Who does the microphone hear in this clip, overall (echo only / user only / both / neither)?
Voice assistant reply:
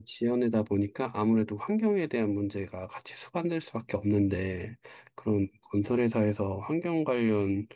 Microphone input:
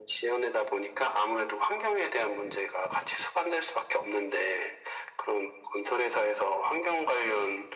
echo only